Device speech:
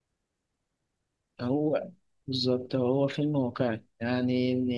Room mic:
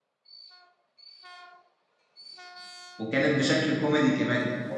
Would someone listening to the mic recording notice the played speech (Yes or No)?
No